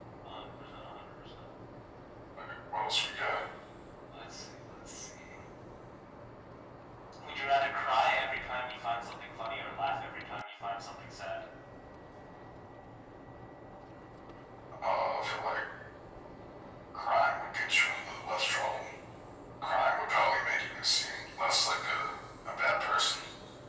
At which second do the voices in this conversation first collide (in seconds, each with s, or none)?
none